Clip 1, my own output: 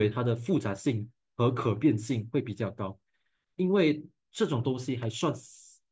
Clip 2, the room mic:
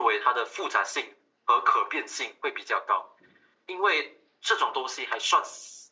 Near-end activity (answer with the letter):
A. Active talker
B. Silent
B